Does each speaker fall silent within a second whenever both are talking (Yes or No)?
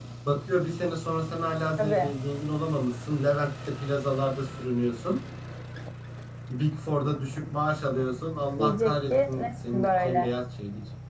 No